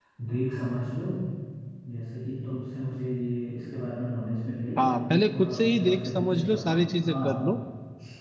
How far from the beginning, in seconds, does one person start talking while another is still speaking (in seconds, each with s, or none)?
4.8 s